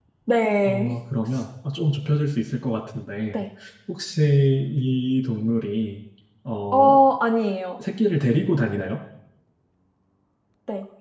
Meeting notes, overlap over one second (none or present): none